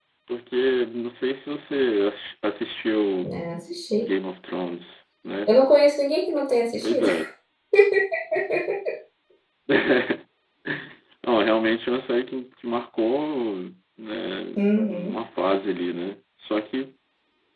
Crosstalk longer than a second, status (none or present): none